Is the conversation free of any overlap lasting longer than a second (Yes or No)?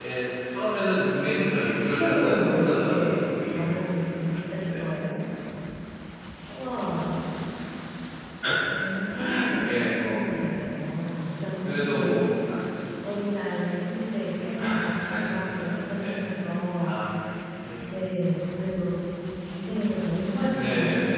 No